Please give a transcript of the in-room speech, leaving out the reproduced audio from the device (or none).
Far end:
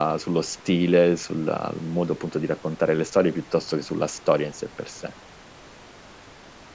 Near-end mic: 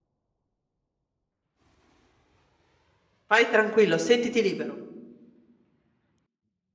Vai tranquillo, sentiti libero.